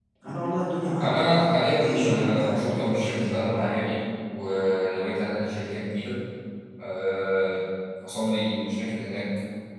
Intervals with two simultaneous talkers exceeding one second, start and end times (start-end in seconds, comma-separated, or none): 1.0-3.6